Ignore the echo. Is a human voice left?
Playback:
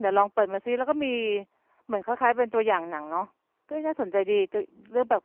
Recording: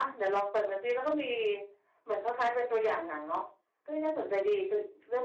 No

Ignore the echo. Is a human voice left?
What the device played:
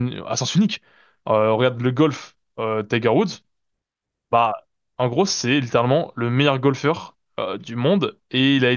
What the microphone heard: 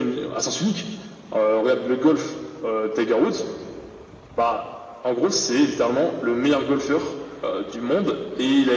No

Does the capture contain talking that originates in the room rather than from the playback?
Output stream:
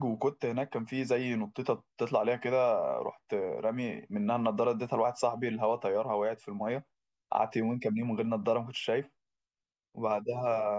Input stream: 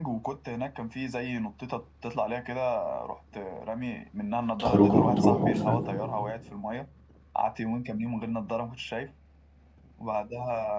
Yes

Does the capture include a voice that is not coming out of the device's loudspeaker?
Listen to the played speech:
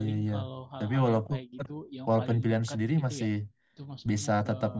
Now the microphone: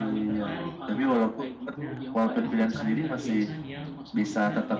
Yes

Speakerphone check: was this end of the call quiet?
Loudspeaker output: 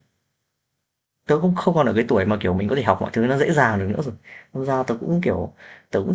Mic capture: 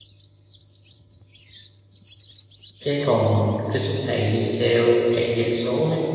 No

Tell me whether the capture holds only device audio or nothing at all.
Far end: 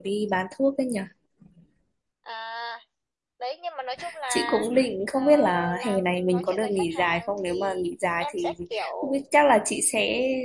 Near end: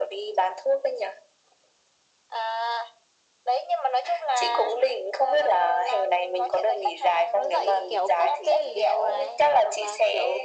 No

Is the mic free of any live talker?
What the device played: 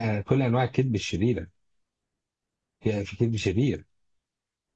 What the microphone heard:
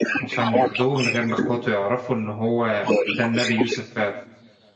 No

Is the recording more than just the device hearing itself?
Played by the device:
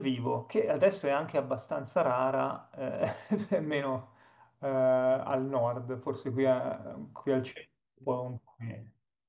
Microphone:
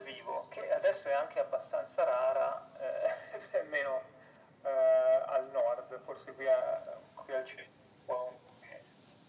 No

